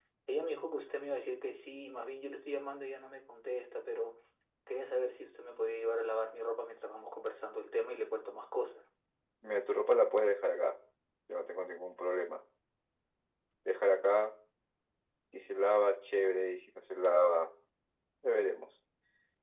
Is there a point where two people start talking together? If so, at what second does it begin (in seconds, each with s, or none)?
none